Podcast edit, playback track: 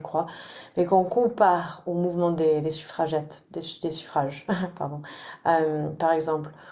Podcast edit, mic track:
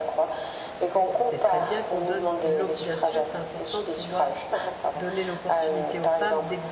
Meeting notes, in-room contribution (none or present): present